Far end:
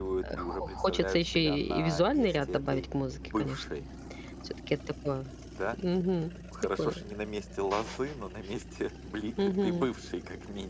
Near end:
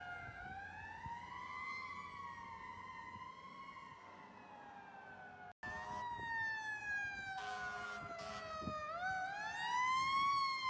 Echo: none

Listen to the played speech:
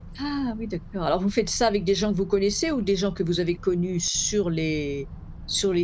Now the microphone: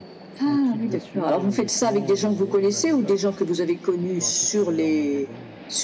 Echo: present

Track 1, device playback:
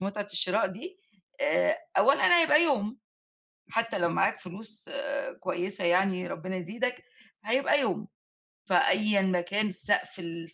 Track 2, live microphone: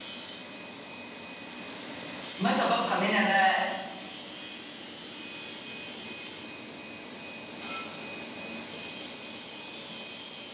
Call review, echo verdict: none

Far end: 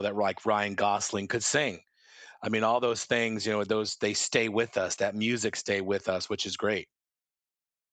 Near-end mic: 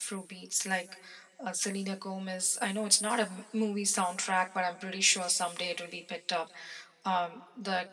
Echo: none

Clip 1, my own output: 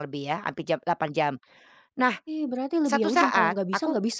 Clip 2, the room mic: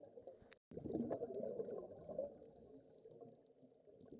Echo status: none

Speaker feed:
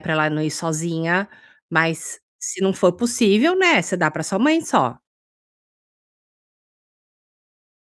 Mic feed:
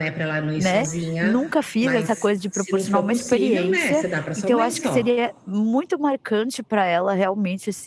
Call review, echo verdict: present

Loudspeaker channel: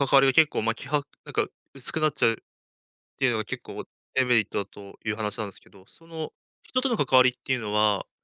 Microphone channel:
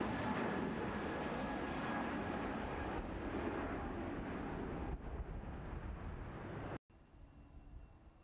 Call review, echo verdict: none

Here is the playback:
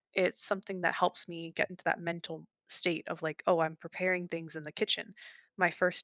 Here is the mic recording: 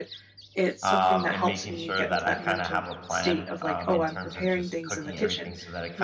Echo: present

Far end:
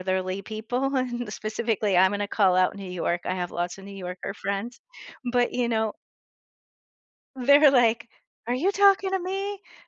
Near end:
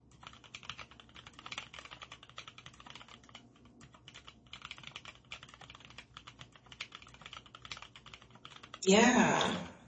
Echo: none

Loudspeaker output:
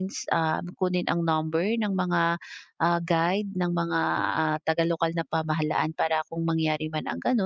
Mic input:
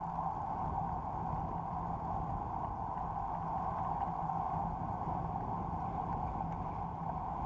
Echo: none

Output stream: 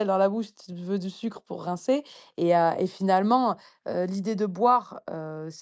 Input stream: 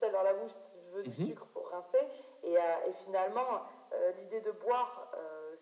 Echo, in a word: present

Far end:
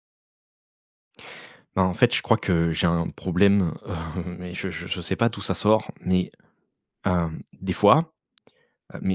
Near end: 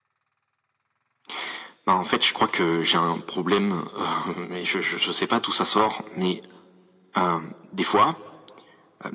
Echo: present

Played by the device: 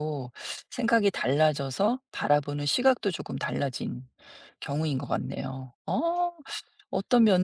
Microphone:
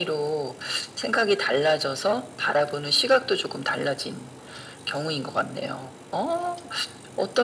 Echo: present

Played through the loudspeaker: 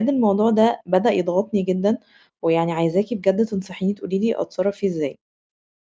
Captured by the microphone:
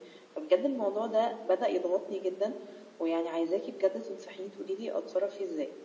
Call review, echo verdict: present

